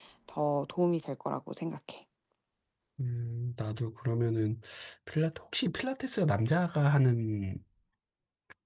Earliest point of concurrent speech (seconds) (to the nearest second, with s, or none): none